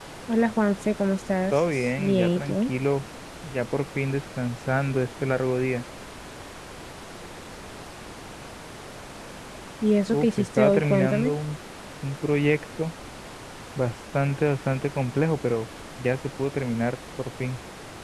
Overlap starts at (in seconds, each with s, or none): 1.5 s